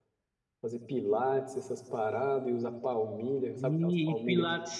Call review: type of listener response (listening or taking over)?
taking over